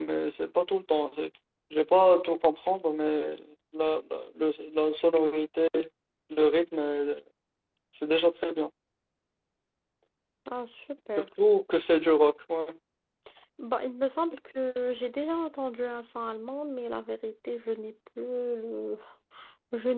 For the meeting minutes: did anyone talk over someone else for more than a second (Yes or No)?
No